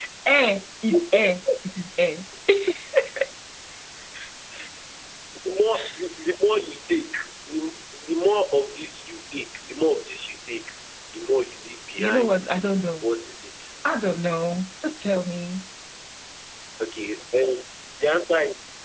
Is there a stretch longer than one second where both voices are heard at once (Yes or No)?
No